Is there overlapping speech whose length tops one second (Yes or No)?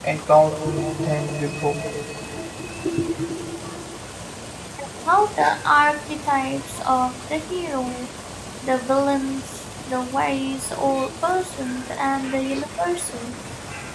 No